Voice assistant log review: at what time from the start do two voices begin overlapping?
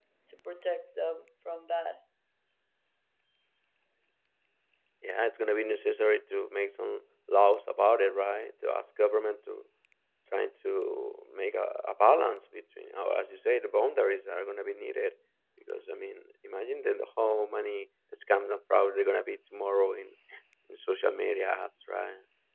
none

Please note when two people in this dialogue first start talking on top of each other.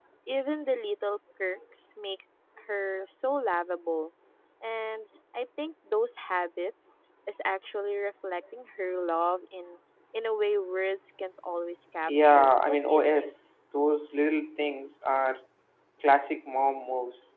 12.1 s

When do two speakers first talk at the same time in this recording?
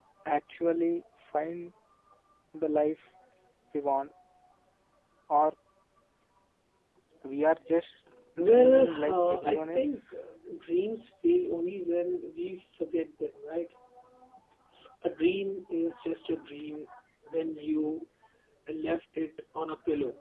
8.4 s

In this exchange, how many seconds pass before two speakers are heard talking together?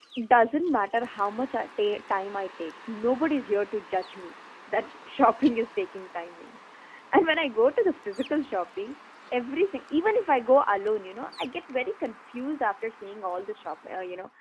none

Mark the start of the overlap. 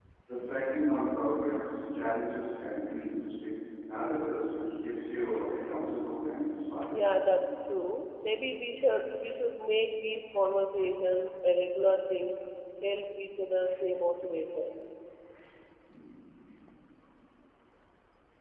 none

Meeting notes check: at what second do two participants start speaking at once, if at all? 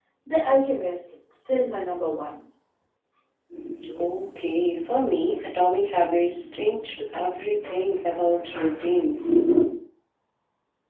none

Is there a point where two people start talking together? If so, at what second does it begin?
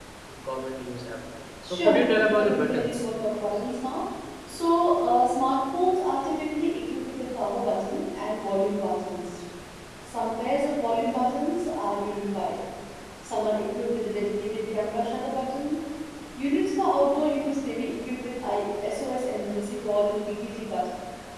1.6 s

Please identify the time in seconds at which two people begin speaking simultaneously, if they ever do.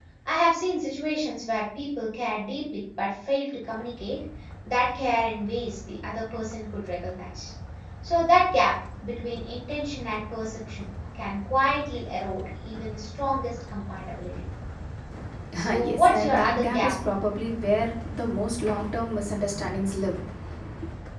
15.6 s

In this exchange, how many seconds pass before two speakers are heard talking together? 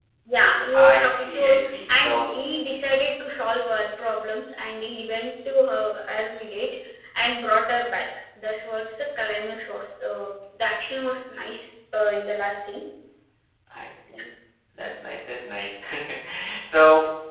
0.7 s

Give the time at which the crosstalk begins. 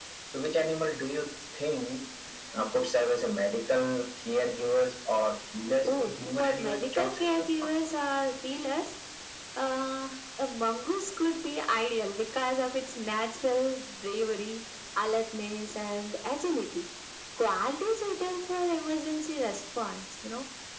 5.6 s

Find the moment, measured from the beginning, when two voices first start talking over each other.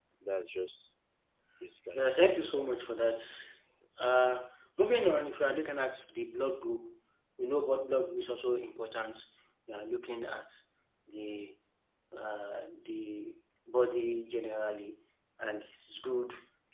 1.9 s

